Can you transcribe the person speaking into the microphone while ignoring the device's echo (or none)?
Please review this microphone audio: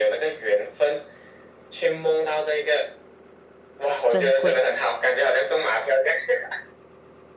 珍贵。